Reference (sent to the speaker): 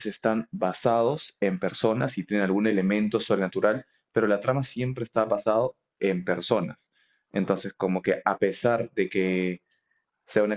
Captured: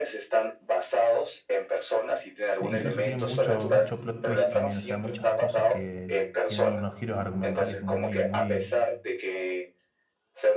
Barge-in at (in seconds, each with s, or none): 2.6 s